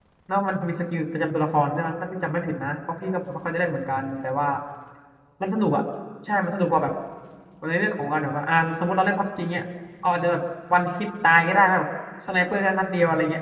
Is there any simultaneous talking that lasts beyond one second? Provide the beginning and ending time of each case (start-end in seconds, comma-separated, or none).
none